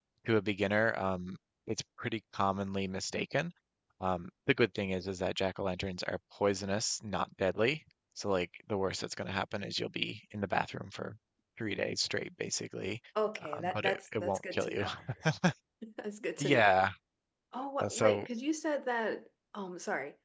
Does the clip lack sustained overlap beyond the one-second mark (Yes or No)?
No